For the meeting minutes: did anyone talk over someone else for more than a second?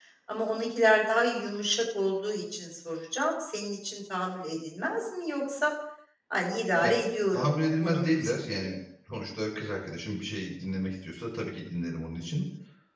Yes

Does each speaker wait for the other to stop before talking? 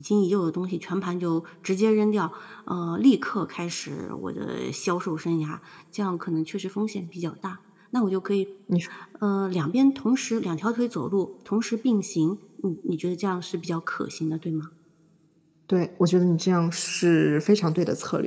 Yes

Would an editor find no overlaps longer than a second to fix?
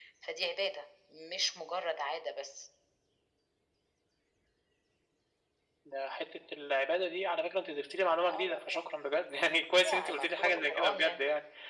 No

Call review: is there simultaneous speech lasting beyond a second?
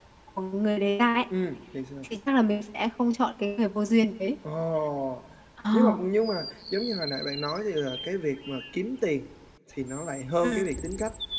No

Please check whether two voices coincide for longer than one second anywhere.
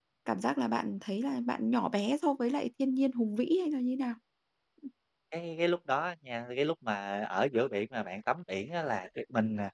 No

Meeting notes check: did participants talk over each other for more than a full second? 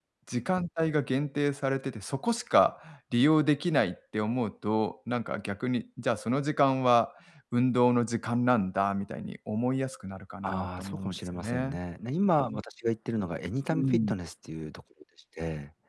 Yes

